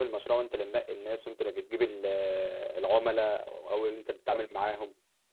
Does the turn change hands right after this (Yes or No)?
No